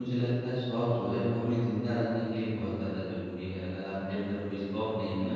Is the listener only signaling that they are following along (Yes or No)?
Yes